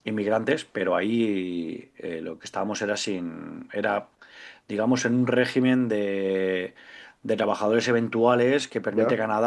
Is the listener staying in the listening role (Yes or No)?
Yes